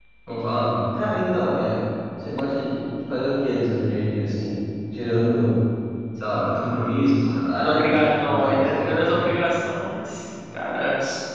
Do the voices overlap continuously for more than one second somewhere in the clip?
Yes, from 7.5 s

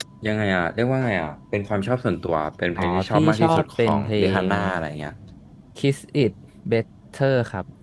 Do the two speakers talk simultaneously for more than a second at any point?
Yes, from 2.8 s

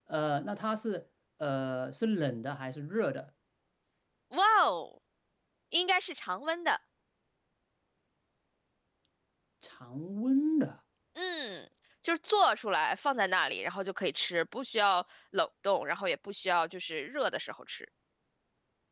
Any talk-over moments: No

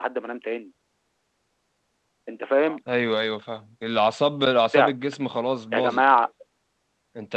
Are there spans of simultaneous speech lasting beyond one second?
No

